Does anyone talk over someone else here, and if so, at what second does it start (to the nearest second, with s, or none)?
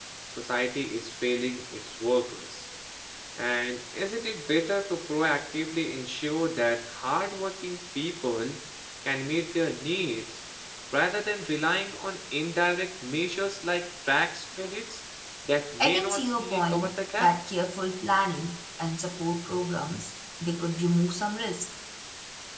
16 s